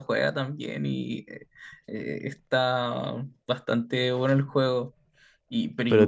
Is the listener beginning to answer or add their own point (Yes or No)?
No